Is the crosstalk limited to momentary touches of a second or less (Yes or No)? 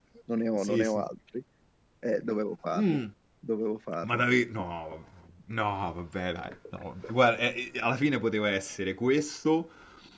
Yes